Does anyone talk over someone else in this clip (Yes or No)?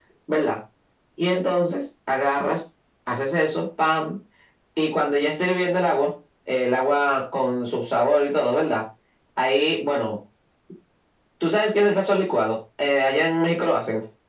No